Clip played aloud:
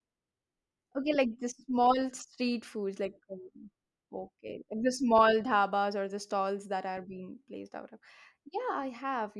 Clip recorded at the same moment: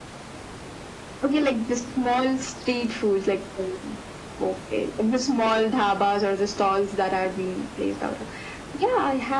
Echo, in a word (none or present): present